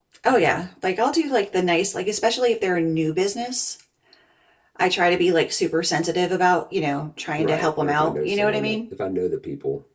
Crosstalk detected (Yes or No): Yes